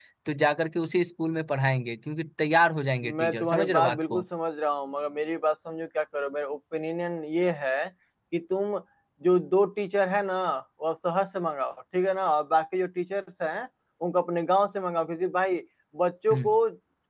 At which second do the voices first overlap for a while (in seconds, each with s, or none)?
3.0 s